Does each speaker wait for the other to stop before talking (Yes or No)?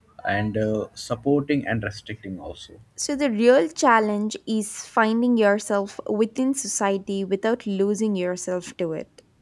Yes